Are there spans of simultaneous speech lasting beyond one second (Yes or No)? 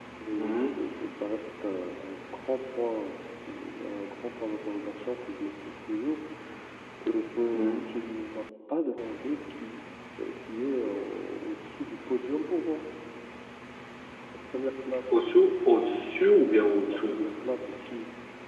No